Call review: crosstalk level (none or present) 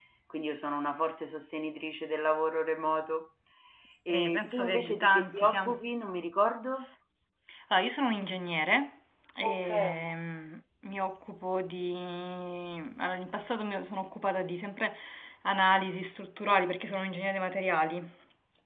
present